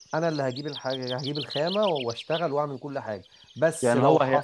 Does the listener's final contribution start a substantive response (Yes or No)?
Yes